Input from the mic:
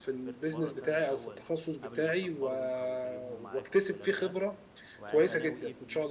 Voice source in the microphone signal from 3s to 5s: both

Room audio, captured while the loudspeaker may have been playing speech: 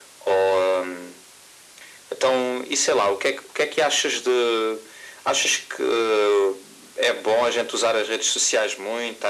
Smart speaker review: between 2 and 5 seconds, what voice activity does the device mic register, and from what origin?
echo only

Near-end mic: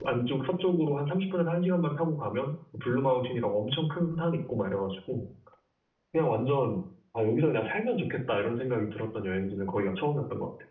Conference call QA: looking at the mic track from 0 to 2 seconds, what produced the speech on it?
user only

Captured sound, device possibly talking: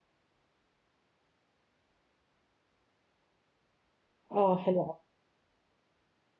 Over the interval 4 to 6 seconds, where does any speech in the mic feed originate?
user only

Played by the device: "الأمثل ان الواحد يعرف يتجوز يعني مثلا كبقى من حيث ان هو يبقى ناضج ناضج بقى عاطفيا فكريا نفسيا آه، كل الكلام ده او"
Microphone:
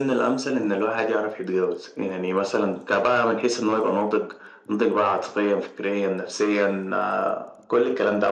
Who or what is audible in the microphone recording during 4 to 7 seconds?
echo only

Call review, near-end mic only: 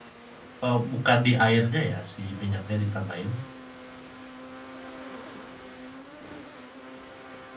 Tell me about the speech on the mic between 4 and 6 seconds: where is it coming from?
neither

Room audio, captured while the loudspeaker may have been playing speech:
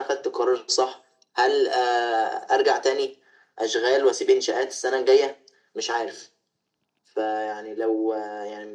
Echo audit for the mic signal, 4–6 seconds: echo only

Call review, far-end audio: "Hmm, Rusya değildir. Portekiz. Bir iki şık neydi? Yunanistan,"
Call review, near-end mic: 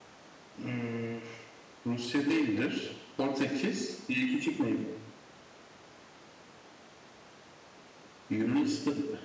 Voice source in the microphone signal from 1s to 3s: echo only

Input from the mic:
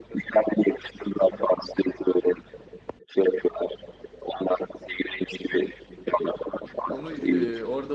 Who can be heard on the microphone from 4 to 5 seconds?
echo only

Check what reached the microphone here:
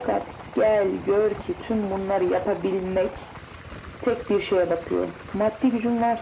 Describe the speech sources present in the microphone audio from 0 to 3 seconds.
echo only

